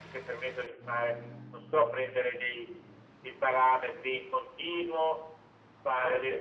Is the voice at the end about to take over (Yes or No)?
No